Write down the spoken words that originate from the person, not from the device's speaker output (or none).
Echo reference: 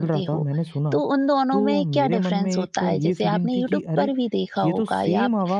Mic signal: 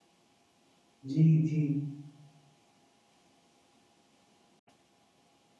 जी, जी।